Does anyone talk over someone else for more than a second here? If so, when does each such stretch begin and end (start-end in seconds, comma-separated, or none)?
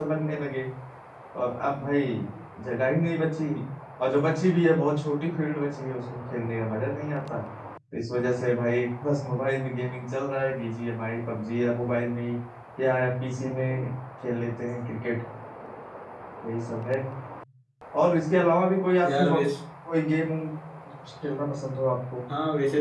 none